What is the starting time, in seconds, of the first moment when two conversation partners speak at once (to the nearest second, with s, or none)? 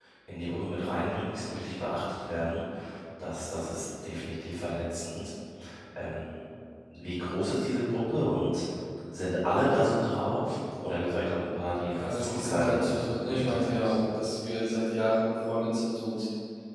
12 s